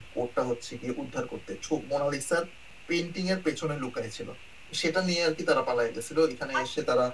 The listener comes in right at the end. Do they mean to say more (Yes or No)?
Yes